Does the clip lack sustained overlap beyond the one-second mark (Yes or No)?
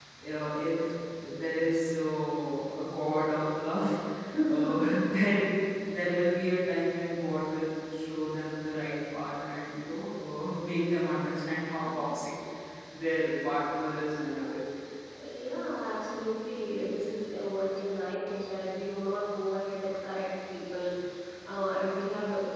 Yes